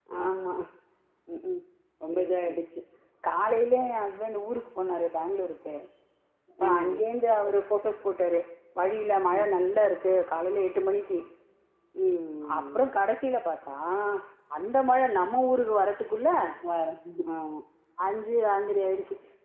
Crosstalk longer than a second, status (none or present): none